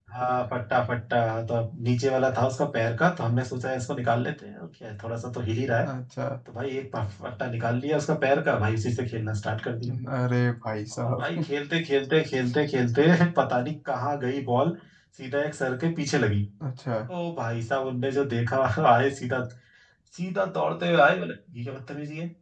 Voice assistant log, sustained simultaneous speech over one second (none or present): none